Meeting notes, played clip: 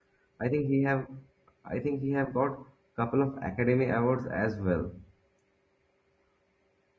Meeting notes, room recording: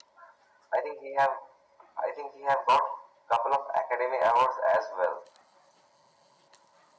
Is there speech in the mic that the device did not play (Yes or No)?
No